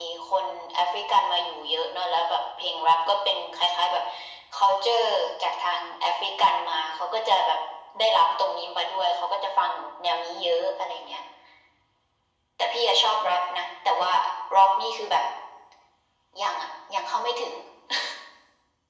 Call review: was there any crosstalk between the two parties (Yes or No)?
No